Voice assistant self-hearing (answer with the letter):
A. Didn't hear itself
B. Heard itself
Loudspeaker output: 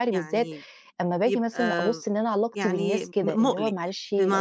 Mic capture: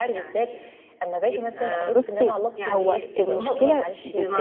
B